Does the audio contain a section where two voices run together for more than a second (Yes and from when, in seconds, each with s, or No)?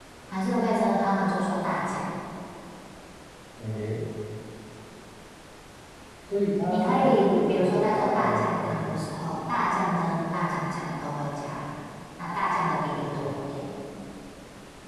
Yes, from 6.7 s